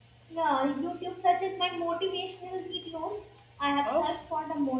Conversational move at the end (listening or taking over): listening